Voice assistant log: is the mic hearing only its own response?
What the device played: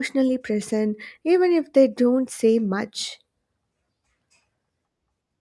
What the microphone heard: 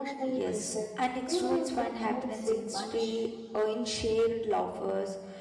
No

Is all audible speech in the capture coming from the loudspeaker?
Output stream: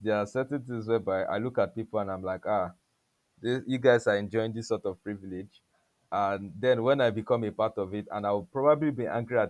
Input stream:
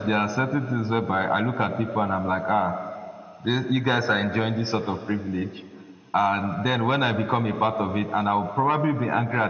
Yes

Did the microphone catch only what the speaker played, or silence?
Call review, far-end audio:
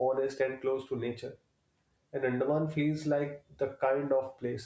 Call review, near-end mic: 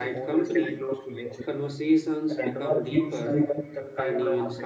No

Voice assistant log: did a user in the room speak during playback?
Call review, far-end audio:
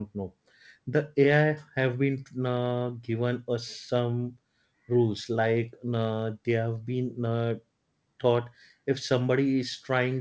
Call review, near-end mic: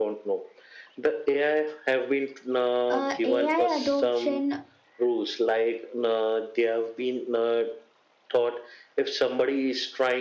Yes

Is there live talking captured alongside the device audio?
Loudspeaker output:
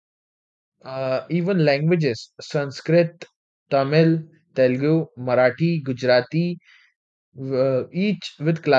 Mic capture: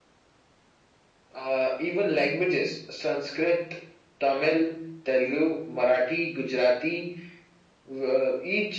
No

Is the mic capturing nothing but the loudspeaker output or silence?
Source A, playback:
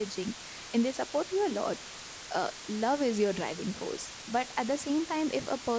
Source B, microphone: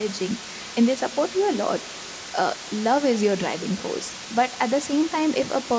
Yes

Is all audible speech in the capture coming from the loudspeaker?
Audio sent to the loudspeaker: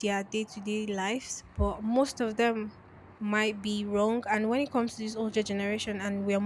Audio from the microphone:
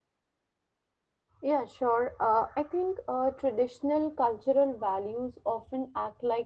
No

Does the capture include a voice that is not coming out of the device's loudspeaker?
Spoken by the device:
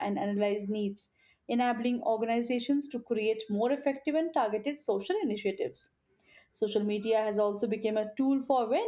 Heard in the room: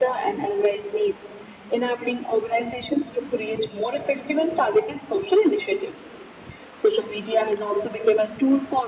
No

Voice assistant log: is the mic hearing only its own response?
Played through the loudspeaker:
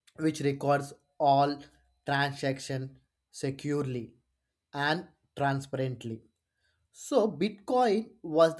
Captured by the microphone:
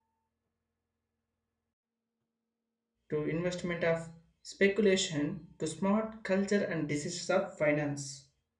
No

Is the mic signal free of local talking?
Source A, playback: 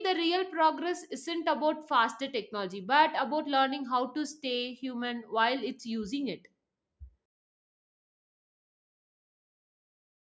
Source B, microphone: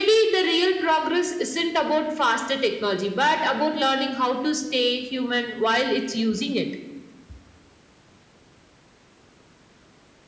Yes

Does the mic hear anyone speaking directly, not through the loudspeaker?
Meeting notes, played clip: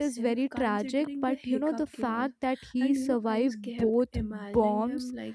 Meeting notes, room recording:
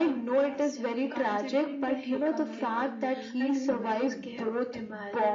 Yes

